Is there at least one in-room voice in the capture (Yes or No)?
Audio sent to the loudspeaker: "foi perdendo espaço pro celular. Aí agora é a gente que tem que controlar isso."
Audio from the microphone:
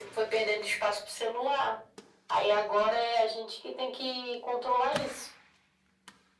No